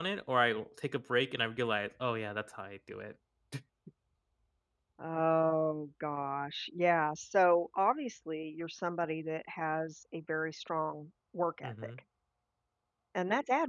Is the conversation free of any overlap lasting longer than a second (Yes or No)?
Yes